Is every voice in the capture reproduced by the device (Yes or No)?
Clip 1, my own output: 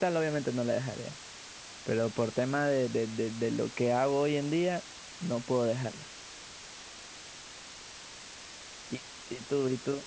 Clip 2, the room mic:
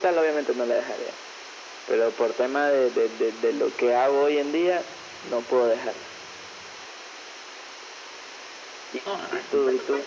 No